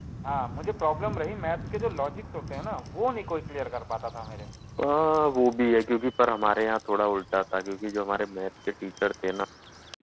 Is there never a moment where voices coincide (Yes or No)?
Yes